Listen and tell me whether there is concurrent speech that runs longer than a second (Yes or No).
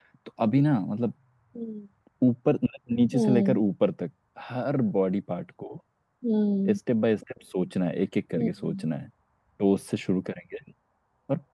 No